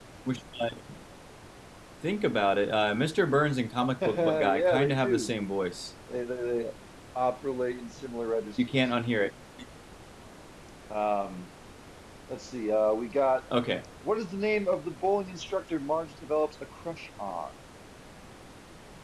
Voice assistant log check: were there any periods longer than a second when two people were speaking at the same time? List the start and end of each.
4.0-5.3

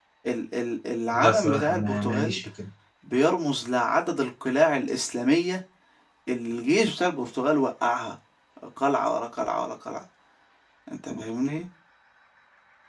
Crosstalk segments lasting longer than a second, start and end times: 1.1-2.4

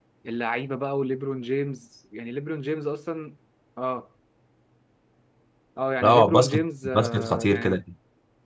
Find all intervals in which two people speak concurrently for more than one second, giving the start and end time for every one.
6.0-7.8

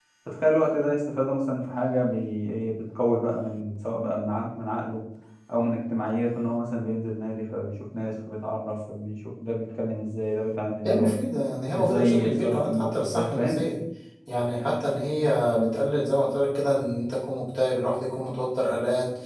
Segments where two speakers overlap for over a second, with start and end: 11.8-13.6

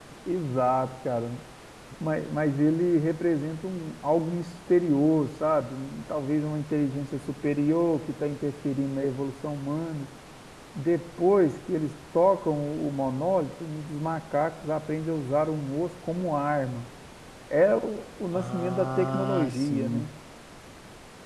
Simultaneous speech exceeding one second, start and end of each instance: 18.3-20.1

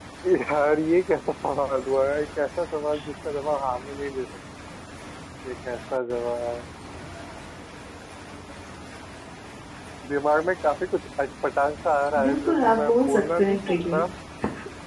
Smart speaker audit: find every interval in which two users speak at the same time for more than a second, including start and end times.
12.2-14.0

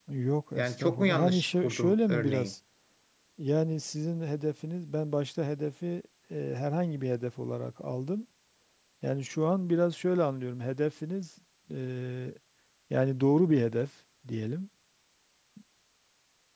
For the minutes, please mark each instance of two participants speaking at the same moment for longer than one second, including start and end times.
0.6-2.5

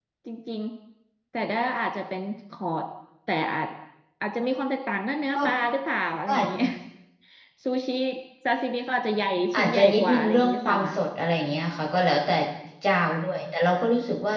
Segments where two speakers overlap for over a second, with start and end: 9.5-10.9

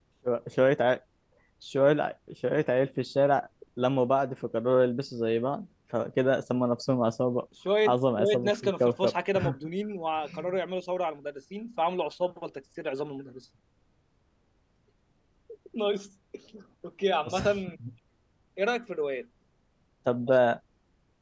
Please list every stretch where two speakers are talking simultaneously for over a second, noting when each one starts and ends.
7.9-9.1

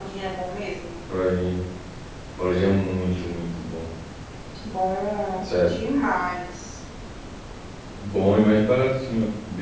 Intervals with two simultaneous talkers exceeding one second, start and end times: none

